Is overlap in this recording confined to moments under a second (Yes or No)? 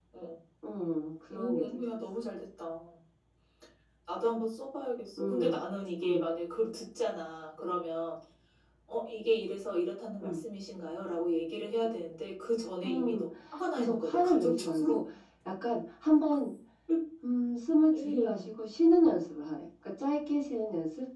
No